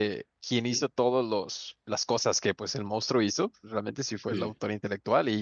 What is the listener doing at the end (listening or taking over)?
listening